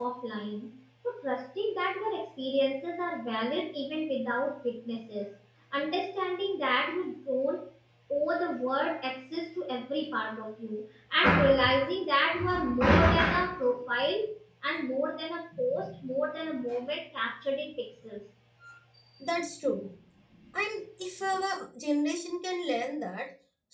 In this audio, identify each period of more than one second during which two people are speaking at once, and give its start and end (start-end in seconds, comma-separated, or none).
none